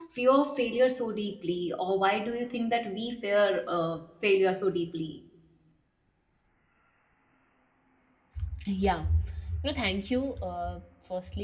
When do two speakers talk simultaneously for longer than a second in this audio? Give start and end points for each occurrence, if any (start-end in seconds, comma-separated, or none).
none